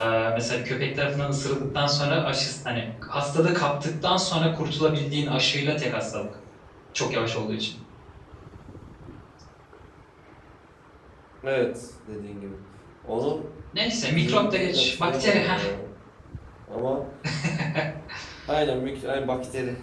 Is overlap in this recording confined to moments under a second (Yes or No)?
No